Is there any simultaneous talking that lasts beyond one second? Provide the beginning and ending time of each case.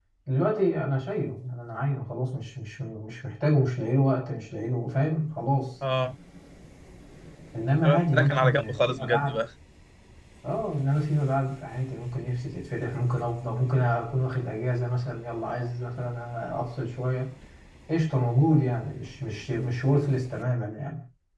7.8-9.4

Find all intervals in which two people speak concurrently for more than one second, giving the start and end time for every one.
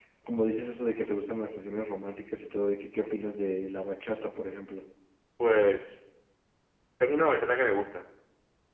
none

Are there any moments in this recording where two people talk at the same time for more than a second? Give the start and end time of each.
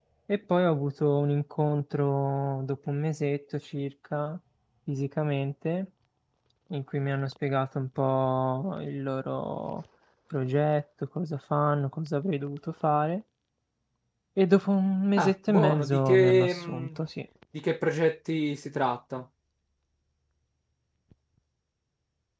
15.2-16.9

